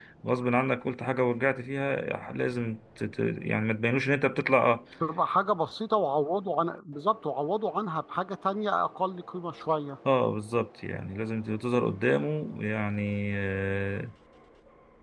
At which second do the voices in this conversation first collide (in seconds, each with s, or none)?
none